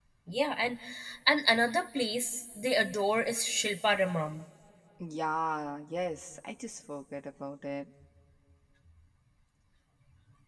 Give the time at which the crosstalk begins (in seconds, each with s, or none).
none